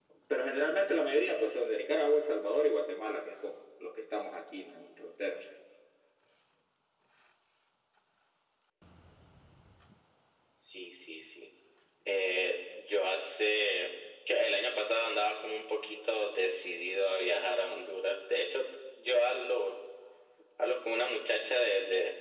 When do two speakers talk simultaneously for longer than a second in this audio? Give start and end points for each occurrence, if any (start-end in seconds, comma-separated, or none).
none